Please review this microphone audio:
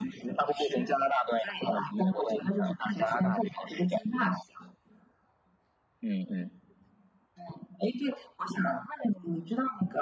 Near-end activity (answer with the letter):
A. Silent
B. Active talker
A